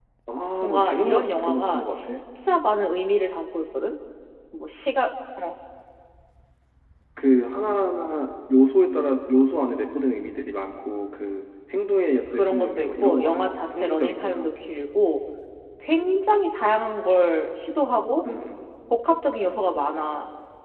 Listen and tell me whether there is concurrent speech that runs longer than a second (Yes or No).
Yes